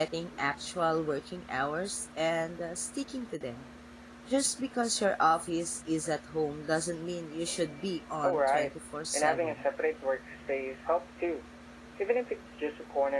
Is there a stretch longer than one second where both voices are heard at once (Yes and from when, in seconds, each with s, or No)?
No